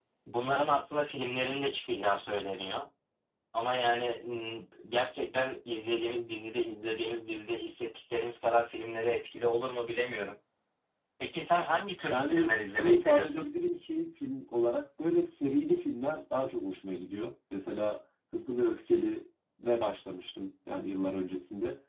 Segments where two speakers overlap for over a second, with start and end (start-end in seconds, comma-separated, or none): 12.1-13.4